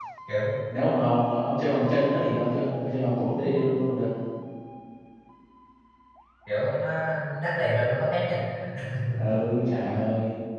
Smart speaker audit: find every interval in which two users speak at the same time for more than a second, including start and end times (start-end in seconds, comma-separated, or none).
none